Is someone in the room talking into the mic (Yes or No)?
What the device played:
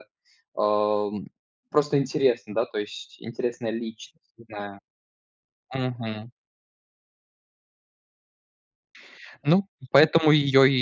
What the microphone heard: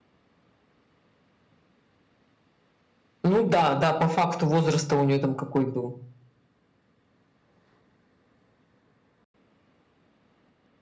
Yes